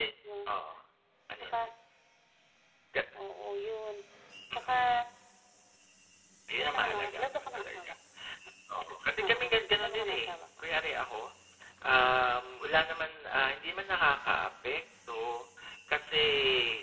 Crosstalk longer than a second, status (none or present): present